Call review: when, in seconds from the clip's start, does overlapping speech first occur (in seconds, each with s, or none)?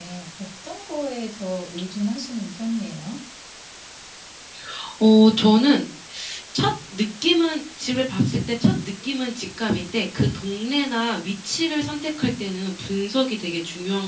none